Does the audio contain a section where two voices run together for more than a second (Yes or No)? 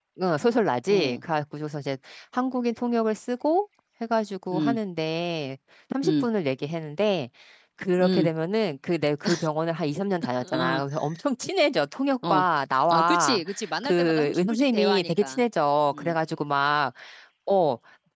Yes